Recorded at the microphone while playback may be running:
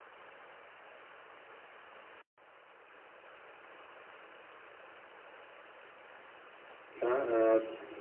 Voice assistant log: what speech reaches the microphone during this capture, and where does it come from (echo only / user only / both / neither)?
user only